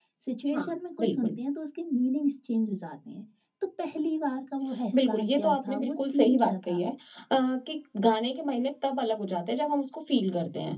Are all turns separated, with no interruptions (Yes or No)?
No